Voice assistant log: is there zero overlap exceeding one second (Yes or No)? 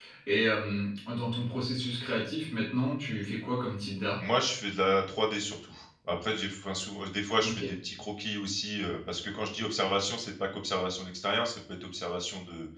Yes